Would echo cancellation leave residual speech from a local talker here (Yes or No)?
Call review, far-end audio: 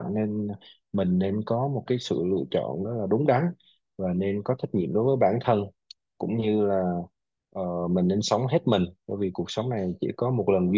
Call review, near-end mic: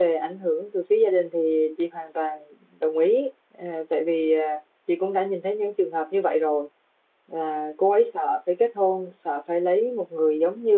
Yes